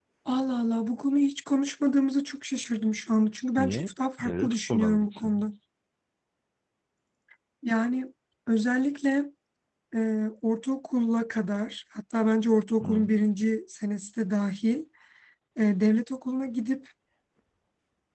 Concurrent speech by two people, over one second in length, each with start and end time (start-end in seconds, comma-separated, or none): 3.6-5.4